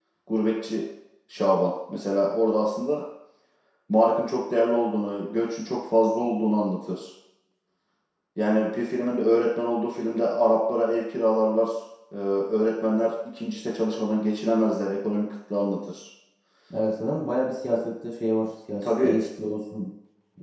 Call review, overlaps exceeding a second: none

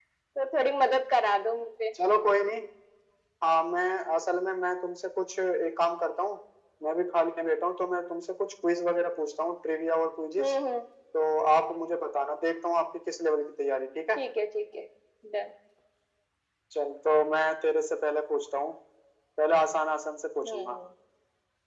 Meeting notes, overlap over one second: none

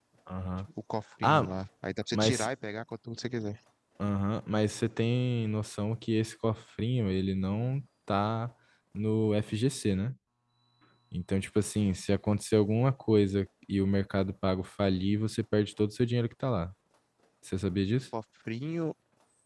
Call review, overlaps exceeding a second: none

